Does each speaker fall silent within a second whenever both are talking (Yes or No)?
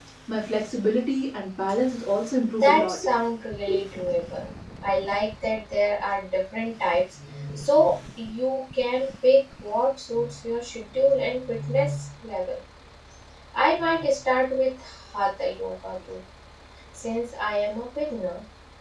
Yes